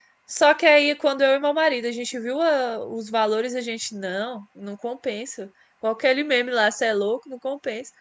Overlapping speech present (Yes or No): No